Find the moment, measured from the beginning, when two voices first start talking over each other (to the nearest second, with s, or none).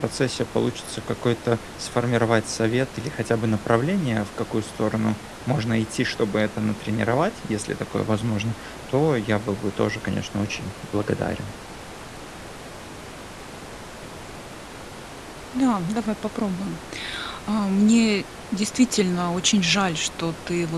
none